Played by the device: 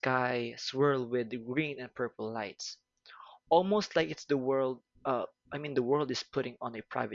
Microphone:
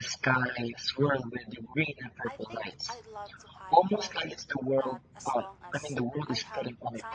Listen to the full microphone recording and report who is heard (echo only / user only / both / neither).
both